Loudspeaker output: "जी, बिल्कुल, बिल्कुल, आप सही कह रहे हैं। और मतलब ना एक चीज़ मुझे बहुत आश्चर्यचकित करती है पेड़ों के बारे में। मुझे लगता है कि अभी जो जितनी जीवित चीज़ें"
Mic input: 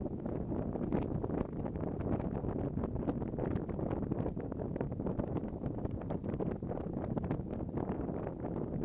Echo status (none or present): none